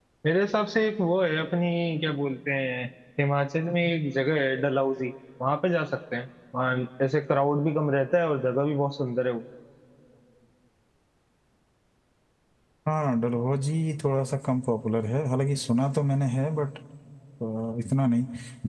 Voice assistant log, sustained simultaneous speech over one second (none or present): none